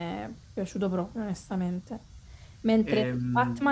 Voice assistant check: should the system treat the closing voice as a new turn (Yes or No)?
No